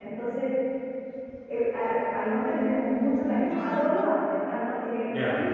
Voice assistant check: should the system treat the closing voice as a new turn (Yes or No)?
No